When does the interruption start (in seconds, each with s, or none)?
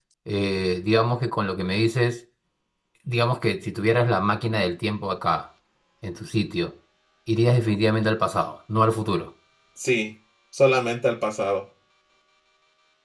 none